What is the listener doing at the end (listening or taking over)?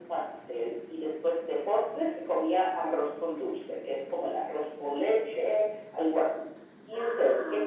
taking over